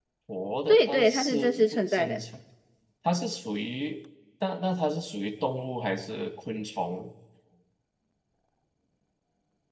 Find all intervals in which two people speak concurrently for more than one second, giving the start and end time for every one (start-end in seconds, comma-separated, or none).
0.7-2.2